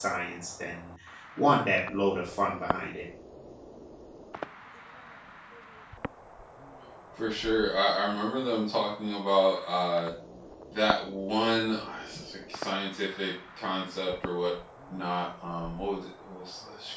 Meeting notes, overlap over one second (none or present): none